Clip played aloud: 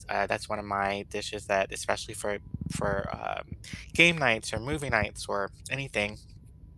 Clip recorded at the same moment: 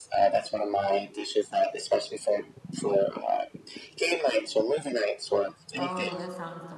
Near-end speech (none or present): present